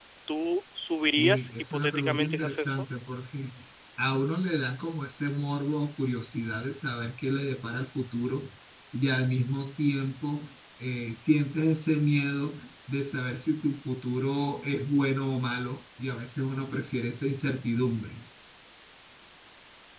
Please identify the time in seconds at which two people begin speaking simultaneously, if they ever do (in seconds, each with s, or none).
1.2 s